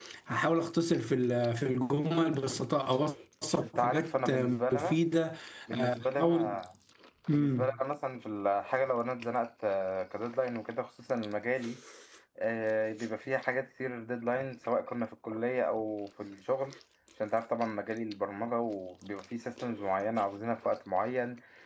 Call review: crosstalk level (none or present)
present